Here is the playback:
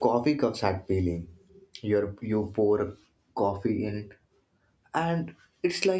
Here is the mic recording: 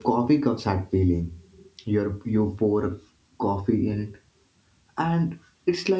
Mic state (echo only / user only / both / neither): echo only